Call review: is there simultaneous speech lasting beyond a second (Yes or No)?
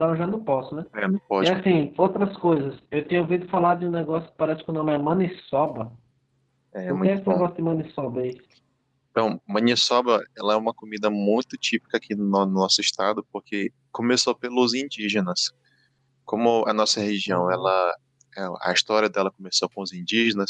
No